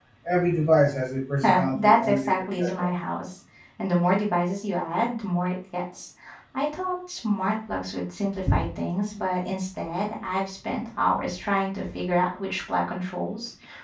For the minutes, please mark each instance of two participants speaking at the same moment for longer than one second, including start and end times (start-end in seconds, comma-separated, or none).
1.4-2.9